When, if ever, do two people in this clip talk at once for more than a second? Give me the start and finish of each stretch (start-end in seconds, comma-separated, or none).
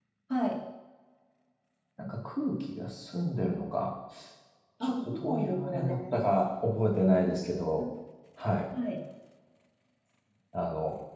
4.8-6.1